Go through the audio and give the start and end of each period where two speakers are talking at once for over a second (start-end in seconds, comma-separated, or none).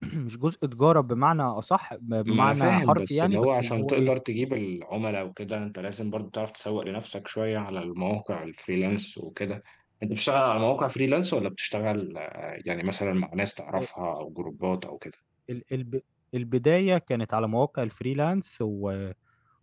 2.3-4.1